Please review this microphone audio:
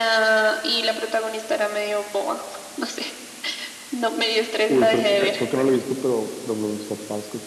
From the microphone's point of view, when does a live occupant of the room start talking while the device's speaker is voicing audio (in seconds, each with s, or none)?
4.7 s